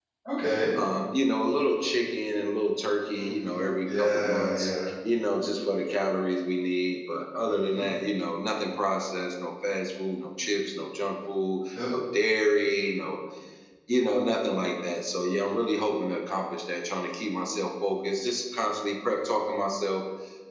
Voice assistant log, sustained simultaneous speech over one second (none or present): present